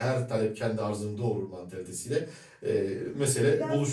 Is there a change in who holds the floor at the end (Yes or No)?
Yes